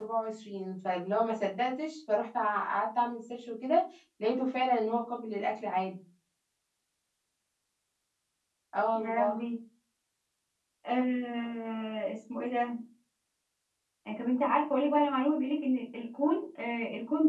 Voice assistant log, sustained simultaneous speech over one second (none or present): none